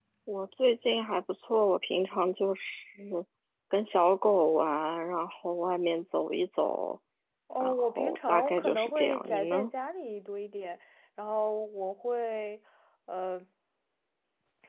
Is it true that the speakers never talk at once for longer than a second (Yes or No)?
No